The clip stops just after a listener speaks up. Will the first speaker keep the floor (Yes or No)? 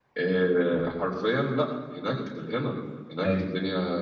Yes